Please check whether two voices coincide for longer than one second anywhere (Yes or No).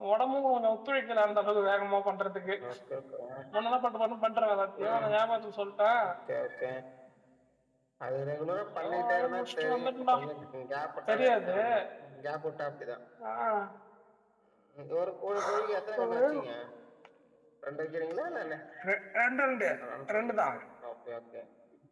Yes